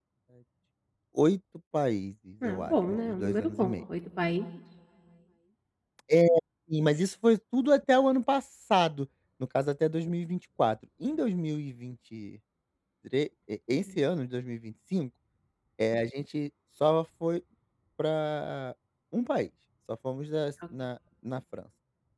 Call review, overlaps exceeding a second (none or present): present